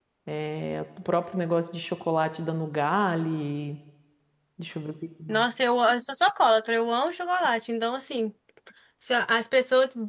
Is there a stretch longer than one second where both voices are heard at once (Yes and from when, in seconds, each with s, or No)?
No